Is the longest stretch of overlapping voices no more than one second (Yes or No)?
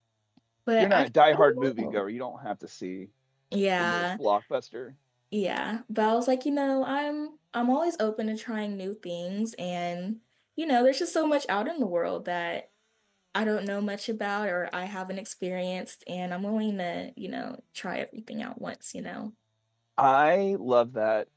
No